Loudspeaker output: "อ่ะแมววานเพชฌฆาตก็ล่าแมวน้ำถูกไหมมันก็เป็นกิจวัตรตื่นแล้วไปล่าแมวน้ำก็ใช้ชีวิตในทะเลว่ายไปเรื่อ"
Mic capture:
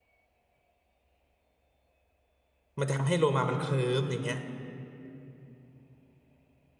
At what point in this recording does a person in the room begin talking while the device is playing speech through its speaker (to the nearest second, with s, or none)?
3 s